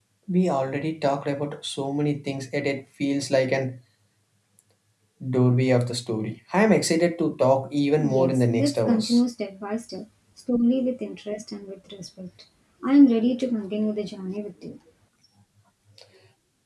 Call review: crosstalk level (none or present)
present